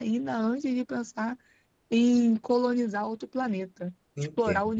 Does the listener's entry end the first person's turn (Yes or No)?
Yes